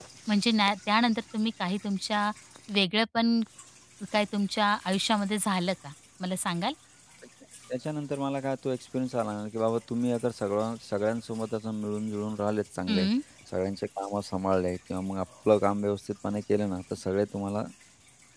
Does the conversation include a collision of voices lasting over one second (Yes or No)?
No